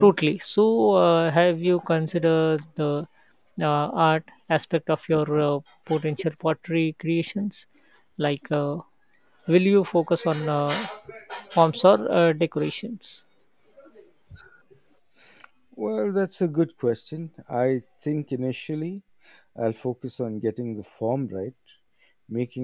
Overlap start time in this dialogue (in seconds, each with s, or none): none